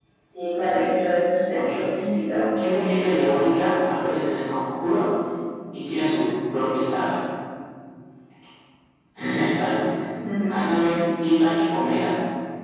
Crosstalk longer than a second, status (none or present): none